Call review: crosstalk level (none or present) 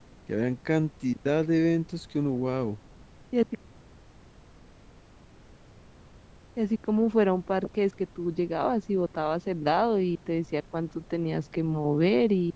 none